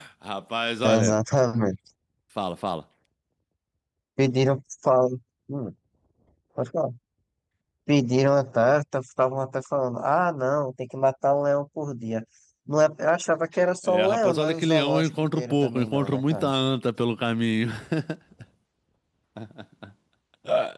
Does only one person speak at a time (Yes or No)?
No